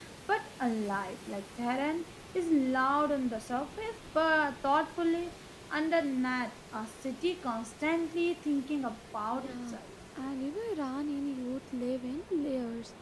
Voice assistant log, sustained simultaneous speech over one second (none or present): none